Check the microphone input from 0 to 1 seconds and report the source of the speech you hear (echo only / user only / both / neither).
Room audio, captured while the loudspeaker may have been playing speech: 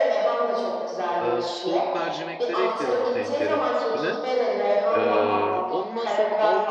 echo only